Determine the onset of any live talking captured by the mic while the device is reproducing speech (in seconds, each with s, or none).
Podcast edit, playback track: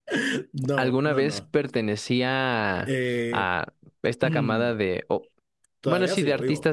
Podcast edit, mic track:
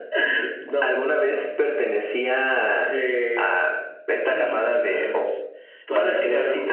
4.2 s